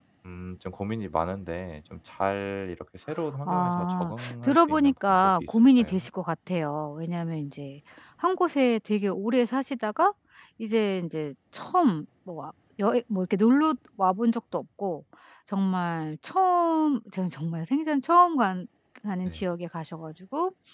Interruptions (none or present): present